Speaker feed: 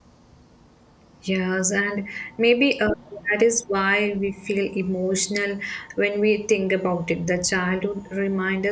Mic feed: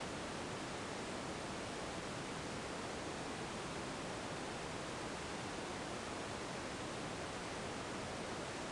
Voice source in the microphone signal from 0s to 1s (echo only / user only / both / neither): neither